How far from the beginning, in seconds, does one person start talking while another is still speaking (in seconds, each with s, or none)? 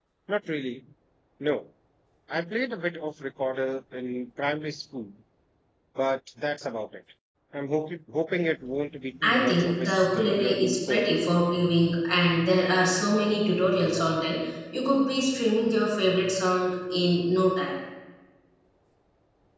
9.2 s